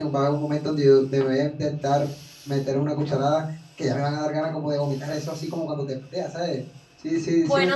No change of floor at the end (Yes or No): No